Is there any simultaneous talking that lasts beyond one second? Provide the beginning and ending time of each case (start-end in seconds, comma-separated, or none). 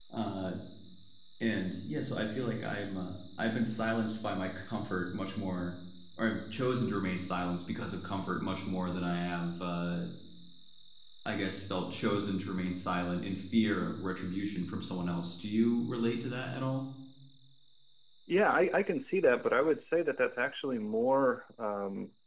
none